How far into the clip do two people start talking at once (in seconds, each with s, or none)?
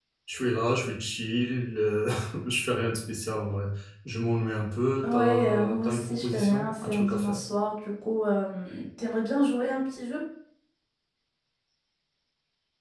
5.0 s